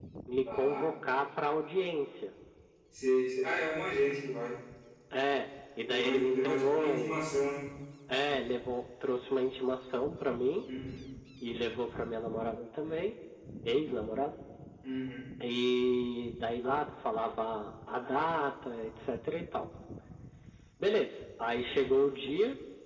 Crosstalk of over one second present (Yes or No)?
Yes